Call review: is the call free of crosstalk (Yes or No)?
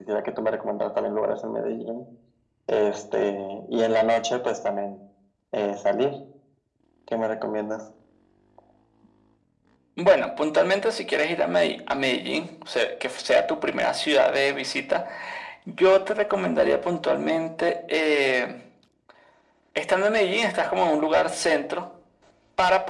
Yes